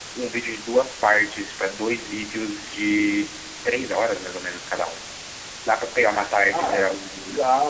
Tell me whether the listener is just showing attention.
No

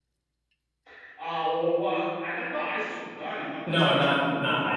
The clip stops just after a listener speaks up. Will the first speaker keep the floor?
No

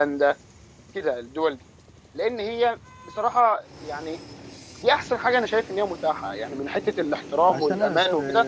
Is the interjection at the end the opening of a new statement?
Yes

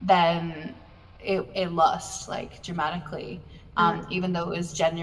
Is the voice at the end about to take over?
No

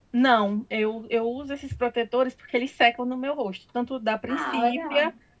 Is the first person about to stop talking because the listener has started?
No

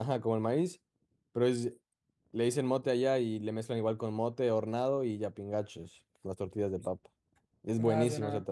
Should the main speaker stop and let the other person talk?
Yes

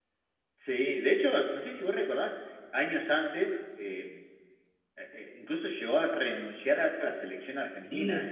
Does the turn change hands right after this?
No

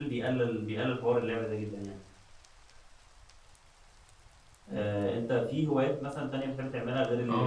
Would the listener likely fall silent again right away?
No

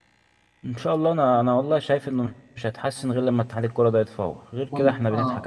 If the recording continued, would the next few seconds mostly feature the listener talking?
Yes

